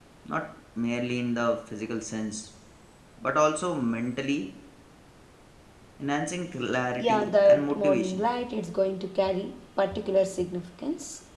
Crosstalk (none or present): present